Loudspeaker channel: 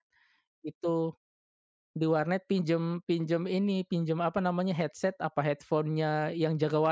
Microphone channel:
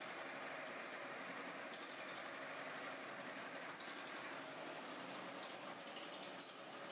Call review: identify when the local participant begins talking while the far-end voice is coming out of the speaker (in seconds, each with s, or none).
none